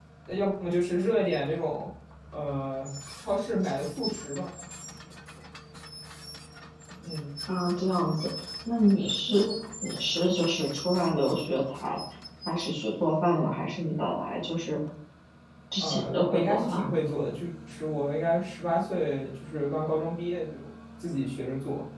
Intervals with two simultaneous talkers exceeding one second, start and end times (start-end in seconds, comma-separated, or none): 15.8-17.0